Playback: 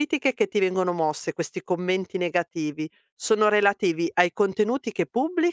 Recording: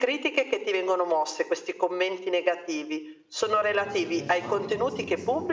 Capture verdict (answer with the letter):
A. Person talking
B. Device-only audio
A